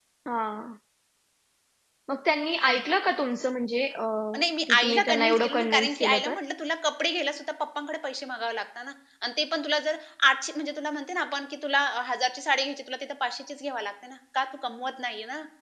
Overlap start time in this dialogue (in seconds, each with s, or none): 4.7 s